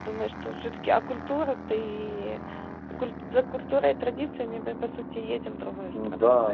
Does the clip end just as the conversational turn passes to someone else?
Yes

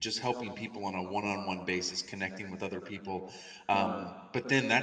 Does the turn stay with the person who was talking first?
Yes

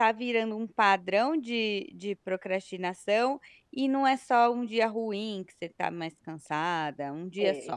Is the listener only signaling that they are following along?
No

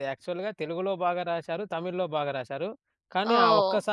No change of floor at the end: No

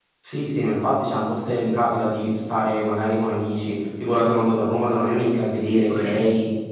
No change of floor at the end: Yes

